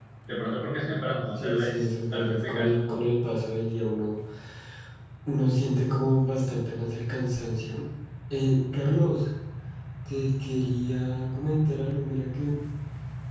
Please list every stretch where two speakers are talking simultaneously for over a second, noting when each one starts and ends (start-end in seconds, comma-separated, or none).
1.4-3.0